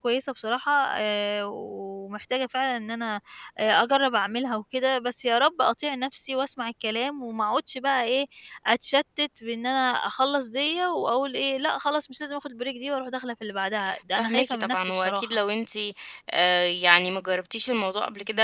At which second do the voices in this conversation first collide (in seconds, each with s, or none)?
14.2 s